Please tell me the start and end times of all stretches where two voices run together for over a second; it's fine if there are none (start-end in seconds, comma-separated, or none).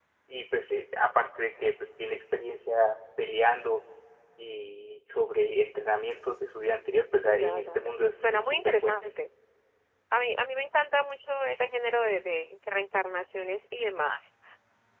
7.2-8.9